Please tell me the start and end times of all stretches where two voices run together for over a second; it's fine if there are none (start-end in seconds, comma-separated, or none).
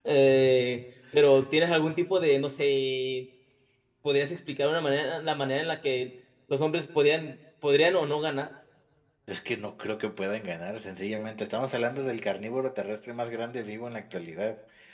none